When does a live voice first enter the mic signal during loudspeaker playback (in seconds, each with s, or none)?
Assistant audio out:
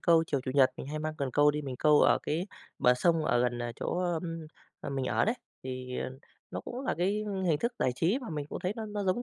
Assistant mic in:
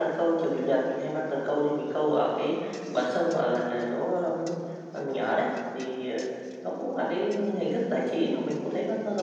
none